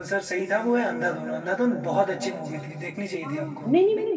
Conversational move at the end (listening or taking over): taking over